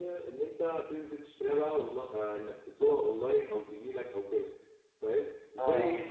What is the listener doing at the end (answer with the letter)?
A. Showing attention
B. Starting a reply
A